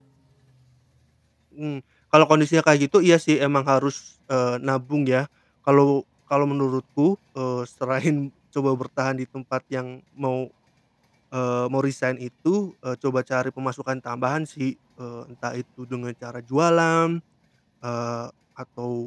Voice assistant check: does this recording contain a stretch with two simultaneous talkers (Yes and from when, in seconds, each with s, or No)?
No